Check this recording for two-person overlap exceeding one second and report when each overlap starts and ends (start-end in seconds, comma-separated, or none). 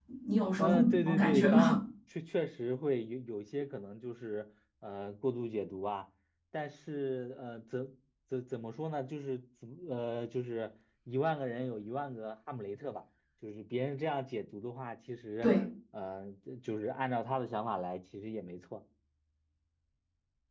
0.6-1.8